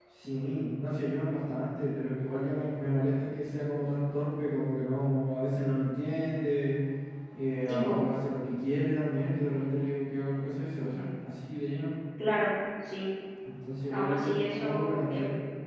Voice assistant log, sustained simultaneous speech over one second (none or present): present